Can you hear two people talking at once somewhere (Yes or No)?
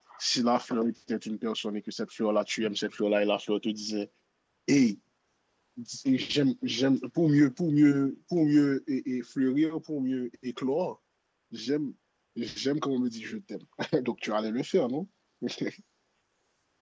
No